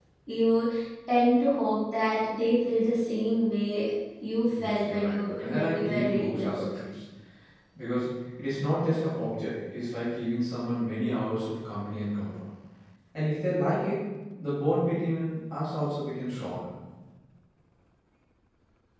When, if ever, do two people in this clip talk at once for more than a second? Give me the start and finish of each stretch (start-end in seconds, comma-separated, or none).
4.5-6.6